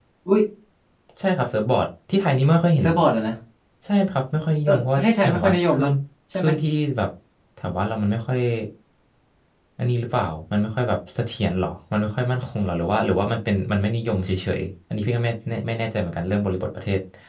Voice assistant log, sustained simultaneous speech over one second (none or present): present